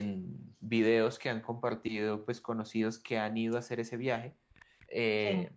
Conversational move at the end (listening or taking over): listening